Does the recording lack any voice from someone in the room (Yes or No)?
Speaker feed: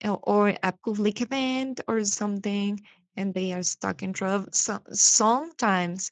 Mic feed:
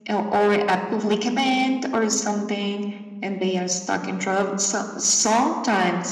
Yes